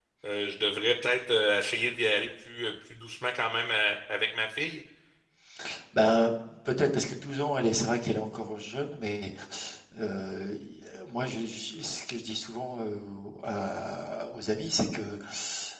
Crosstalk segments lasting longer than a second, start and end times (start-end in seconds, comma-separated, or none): none